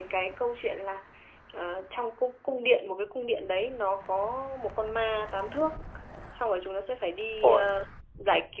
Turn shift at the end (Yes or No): No